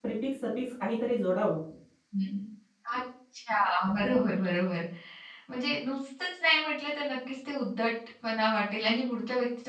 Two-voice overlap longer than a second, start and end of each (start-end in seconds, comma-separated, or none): none